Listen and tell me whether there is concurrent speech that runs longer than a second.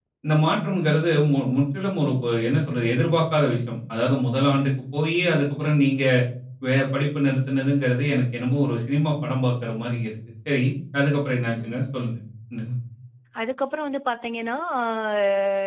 No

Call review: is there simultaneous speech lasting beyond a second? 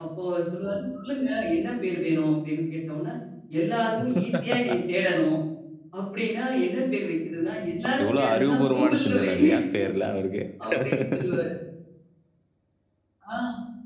Yes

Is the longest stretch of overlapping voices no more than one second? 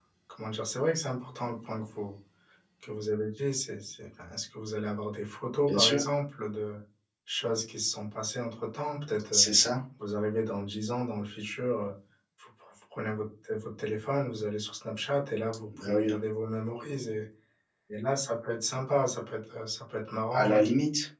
Yes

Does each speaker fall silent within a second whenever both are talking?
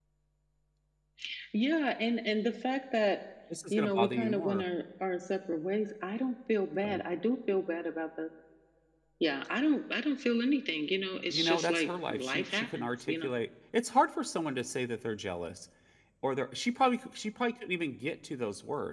No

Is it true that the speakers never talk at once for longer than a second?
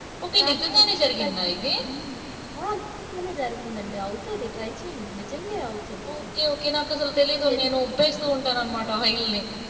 No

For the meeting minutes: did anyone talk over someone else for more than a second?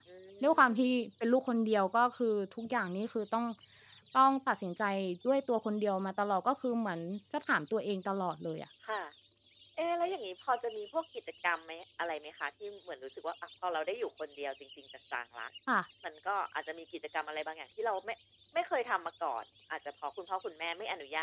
No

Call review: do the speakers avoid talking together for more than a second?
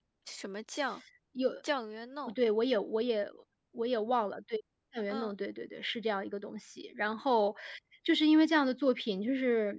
Yes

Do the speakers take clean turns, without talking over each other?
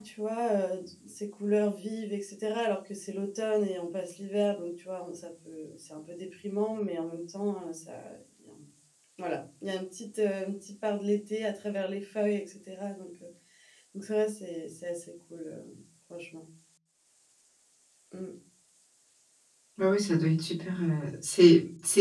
Yes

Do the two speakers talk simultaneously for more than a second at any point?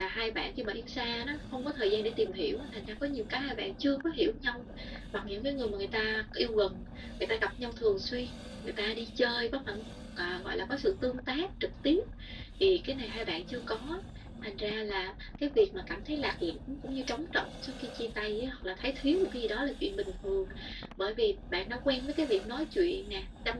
No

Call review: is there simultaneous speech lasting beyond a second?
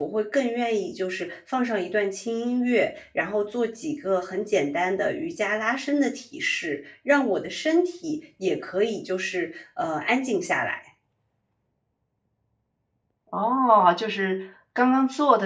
No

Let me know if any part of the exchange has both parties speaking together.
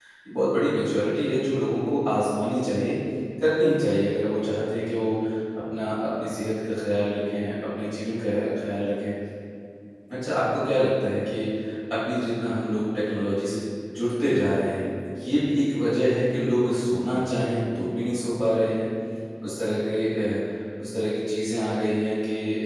No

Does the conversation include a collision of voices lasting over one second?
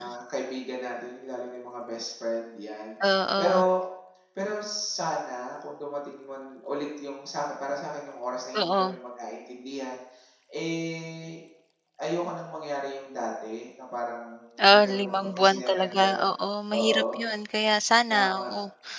Yes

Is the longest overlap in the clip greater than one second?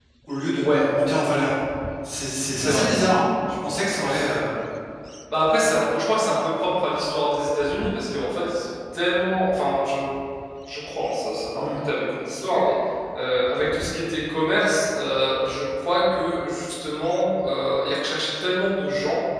No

